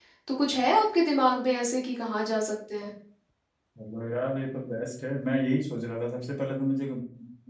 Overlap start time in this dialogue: none

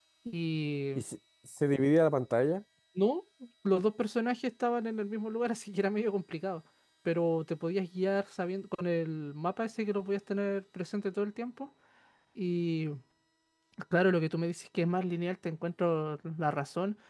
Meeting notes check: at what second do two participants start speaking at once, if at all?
none

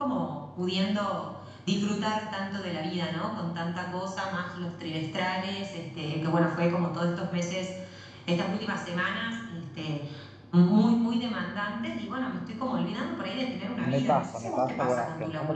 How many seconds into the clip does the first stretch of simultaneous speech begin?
14 s

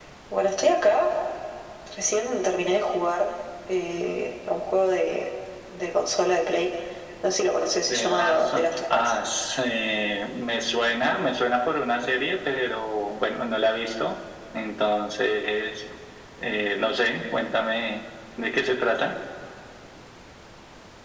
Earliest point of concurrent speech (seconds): 8 s

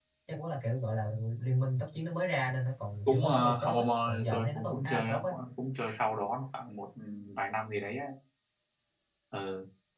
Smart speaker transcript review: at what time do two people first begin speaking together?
3 s

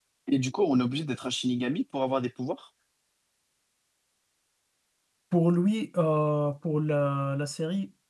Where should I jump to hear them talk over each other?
none

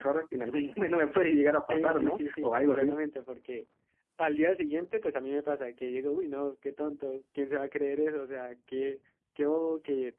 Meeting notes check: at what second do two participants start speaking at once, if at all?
2 s

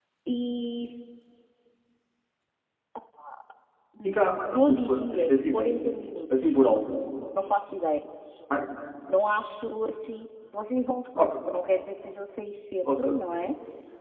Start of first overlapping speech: 4 s

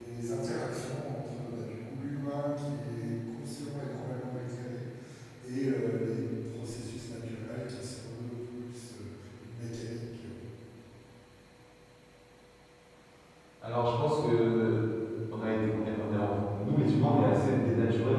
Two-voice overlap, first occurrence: none

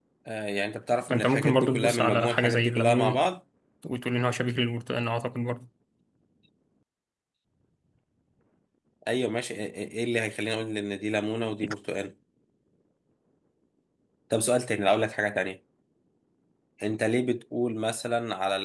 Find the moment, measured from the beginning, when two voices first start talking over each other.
1 s

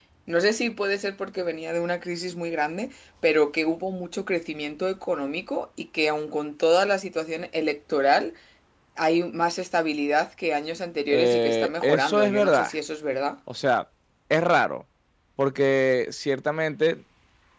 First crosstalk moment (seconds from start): 11 s

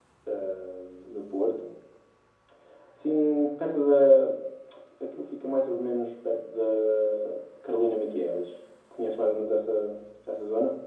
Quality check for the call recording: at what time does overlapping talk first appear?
none

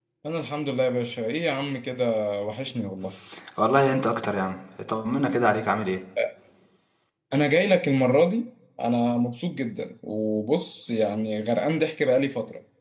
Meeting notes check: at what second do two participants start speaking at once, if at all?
none

